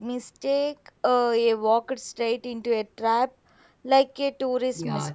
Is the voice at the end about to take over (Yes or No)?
Yes